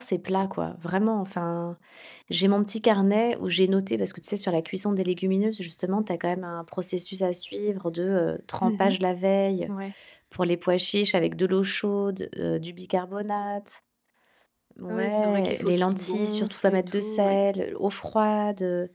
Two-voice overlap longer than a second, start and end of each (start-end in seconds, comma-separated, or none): 14.9-17.4